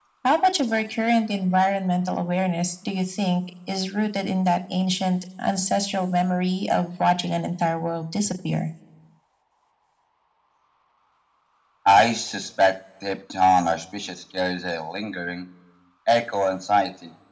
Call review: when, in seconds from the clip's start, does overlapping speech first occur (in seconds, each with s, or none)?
none